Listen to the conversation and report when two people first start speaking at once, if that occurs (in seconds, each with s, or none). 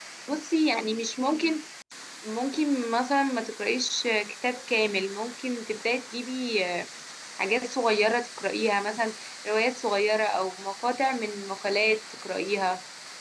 none